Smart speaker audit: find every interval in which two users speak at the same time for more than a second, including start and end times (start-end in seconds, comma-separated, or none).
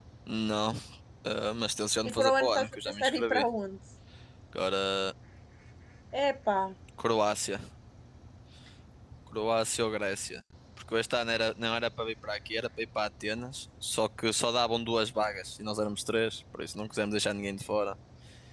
2.1-3.5